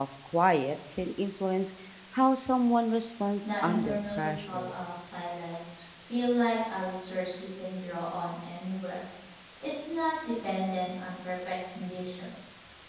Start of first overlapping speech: 3.4 s

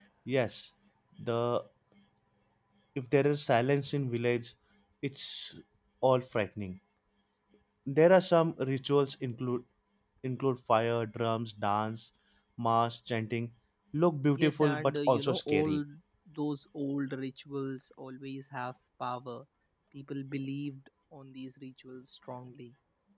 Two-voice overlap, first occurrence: 14.4 s

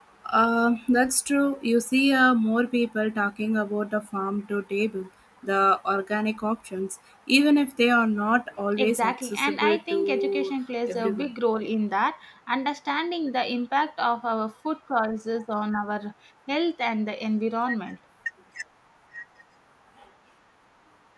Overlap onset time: 8.8 s

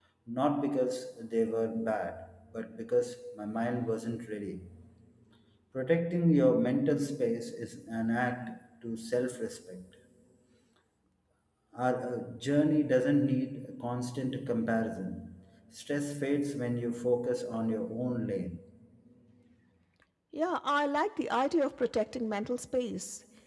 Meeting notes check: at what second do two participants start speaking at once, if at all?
none

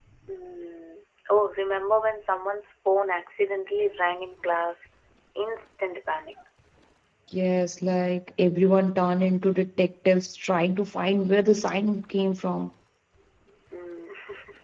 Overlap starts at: none

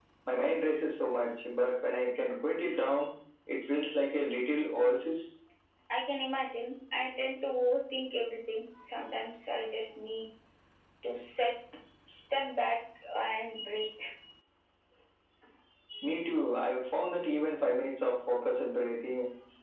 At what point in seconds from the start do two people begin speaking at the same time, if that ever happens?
none

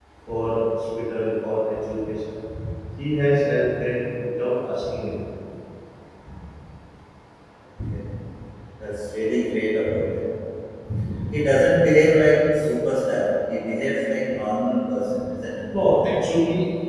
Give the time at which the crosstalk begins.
none

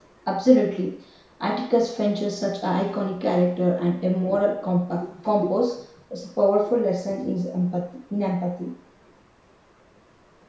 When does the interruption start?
none

